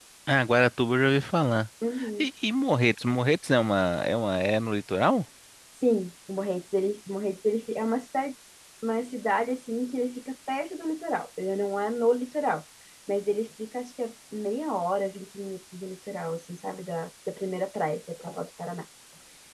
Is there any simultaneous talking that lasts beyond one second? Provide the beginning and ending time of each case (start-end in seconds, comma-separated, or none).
none